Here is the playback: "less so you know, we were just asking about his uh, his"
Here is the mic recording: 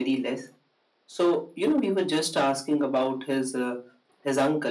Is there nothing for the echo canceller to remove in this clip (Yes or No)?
No